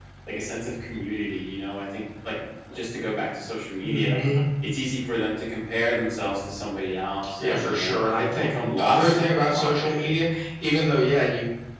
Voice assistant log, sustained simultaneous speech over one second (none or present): present